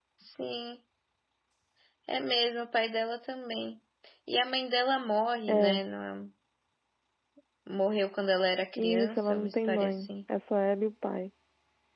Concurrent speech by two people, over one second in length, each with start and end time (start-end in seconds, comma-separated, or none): 8.8-10.1